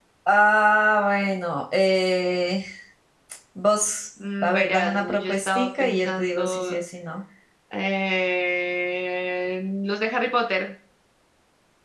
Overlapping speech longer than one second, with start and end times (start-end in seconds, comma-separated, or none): 4.4-6.8